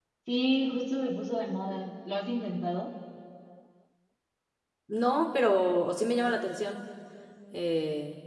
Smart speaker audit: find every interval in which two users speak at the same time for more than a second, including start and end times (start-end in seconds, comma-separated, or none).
none